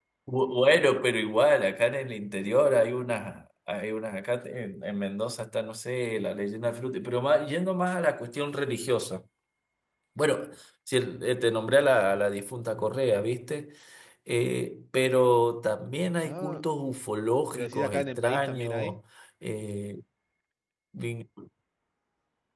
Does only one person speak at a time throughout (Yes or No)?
No